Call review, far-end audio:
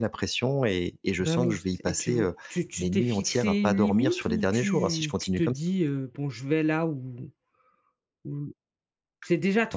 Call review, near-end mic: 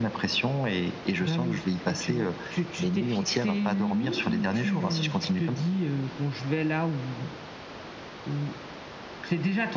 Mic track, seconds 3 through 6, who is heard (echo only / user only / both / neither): echo only